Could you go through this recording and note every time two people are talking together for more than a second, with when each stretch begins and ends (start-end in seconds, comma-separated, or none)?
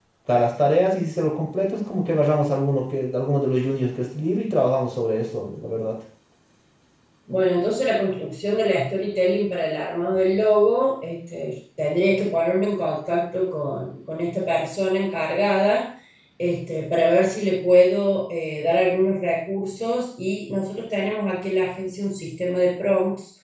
none